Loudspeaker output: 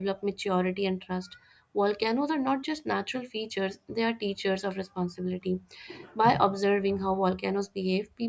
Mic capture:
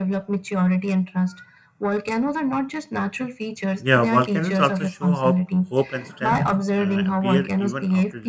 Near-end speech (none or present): present